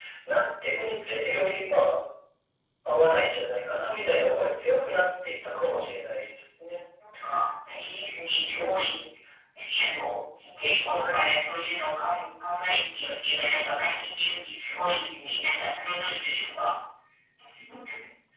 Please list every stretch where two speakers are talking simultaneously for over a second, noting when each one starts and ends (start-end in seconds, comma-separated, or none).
none